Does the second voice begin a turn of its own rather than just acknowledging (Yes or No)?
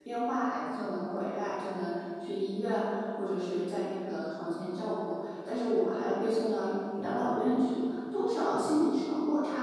No